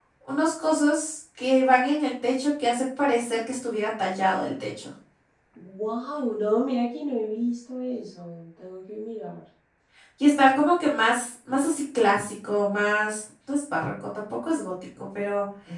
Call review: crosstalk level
none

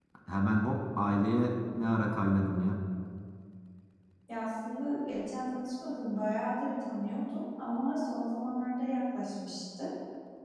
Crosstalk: none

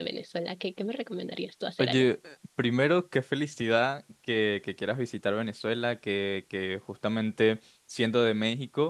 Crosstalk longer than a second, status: none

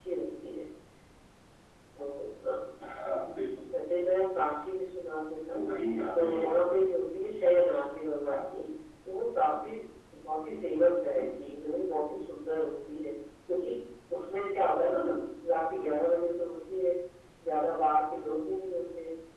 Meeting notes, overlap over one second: none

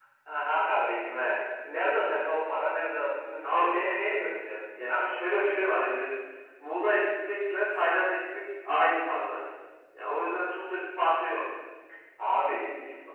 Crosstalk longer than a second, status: present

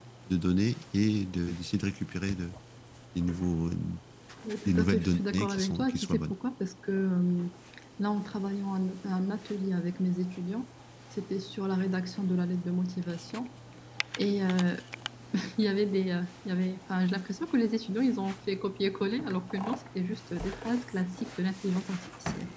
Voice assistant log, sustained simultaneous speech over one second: present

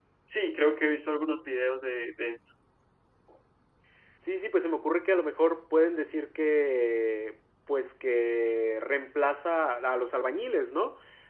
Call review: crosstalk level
none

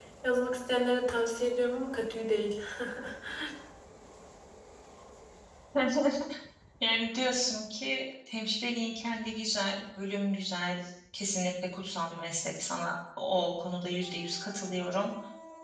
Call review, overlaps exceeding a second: none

